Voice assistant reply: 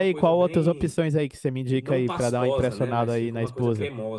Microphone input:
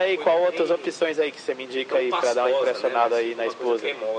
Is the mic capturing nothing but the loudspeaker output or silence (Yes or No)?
Yes